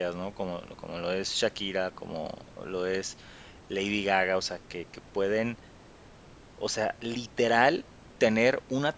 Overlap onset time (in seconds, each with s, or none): none